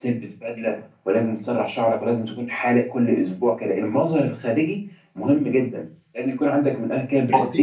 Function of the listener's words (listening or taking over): taking over